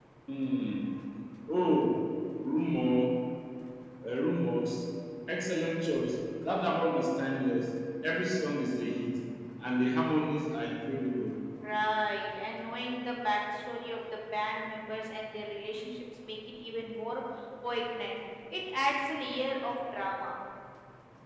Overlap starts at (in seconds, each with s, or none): none